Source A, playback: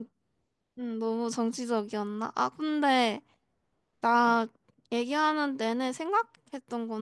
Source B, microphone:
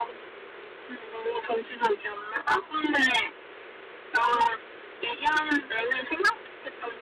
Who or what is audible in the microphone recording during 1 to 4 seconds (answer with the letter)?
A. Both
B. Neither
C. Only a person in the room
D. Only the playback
D